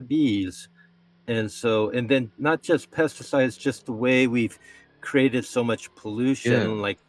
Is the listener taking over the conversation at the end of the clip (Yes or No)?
No